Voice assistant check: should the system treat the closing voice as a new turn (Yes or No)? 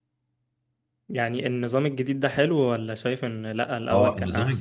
Yes